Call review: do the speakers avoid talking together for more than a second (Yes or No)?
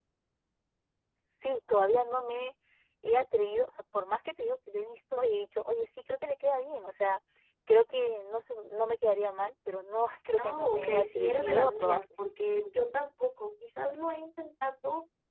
No